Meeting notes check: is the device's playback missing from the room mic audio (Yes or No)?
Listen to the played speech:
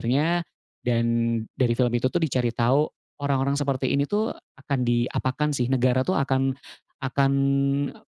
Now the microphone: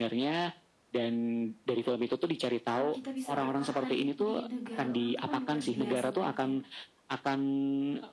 No